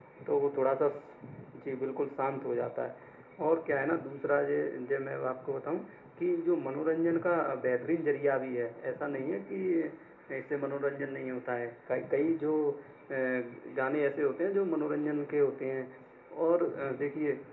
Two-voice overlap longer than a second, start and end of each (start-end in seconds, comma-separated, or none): none